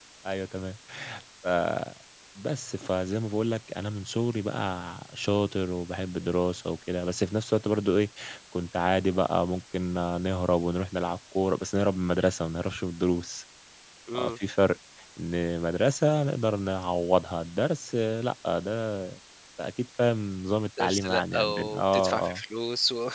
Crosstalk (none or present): present